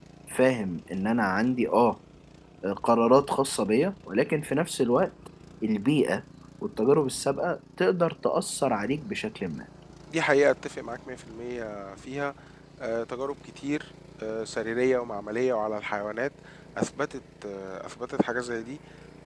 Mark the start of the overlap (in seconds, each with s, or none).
none